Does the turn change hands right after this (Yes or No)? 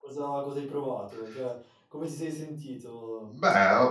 Yes